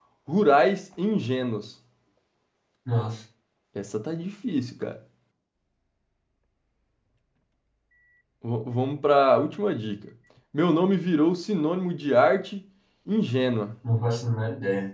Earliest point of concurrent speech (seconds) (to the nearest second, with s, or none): none